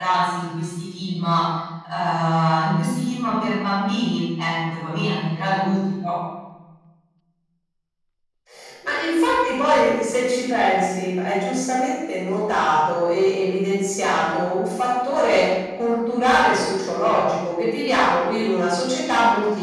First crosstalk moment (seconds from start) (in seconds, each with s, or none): none